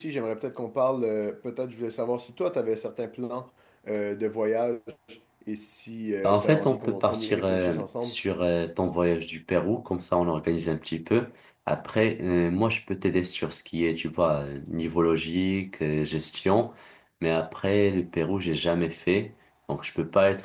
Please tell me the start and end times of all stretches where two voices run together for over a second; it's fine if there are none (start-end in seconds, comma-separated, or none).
6.2-8.2